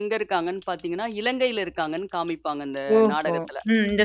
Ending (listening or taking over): taking over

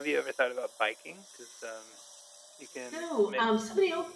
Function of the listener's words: taking over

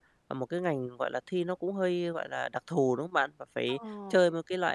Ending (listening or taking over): listening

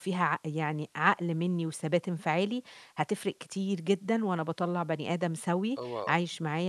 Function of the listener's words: listening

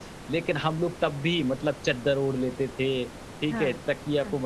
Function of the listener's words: listening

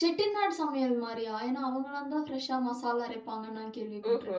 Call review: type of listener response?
taking over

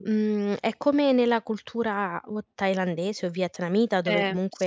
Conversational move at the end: listening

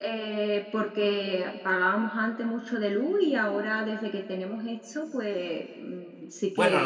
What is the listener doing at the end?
taking over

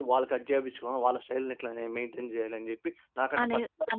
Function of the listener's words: taking over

